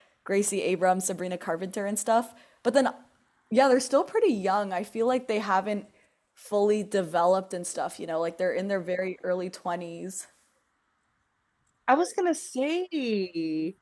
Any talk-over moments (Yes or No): No